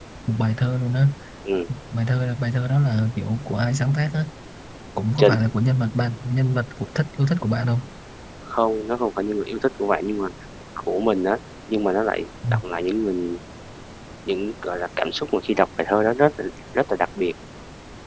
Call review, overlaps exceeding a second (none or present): none